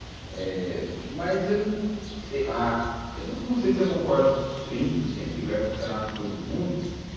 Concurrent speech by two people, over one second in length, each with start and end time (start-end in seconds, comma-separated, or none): none